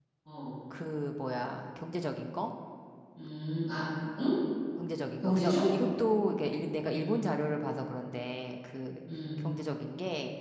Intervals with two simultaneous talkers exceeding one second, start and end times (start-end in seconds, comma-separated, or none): none